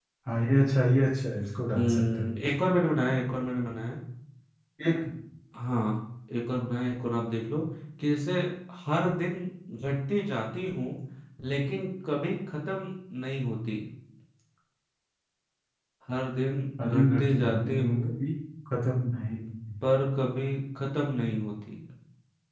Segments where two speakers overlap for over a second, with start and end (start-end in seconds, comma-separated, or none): 16.9-18.2